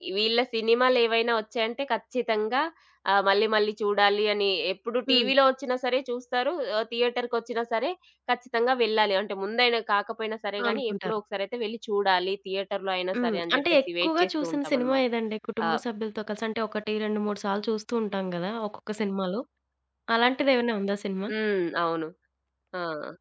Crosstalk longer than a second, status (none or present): present